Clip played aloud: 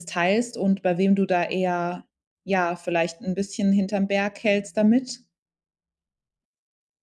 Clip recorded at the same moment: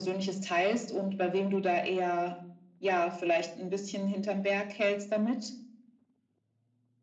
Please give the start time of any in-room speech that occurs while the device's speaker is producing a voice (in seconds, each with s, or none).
none